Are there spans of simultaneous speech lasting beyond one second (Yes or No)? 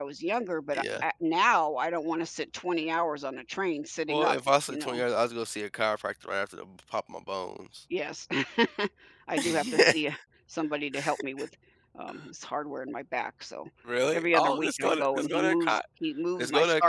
Yes